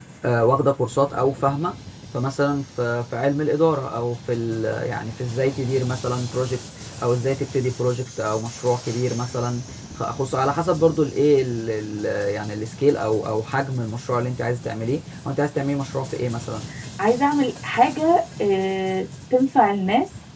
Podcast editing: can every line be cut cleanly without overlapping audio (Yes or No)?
Yes